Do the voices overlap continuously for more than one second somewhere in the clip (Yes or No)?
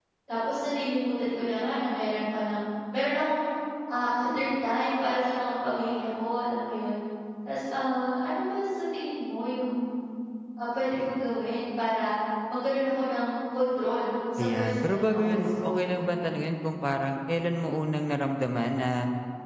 Yes